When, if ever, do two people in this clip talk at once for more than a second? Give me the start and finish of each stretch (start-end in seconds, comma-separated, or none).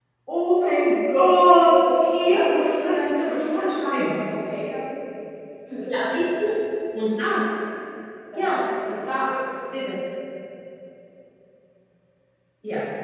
2.8-4.1